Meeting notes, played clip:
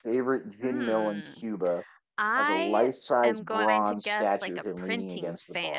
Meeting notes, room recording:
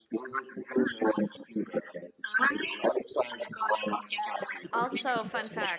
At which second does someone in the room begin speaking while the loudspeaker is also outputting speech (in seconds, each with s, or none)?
4.7 s